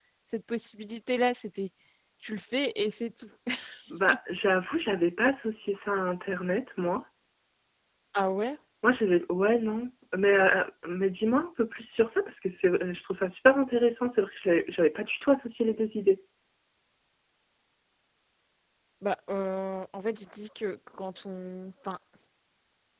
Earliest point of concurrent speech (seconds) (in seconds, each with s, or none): none